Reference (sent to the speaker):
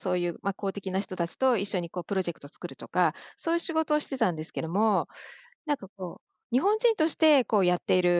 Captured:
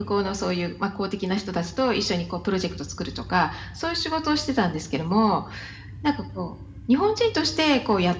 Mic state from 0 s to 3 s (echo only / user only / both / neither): echo only